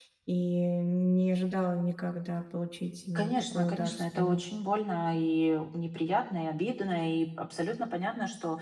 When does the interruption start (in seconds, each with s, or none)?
3.2 s